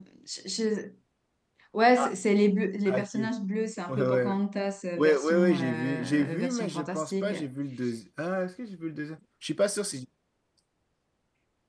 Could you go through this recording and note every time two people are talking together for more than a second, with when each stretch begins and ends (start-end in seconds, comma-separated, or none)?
5.0-7.3